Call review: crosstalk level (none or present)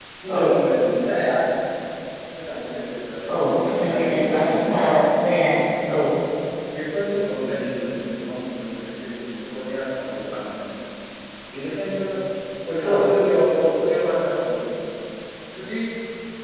present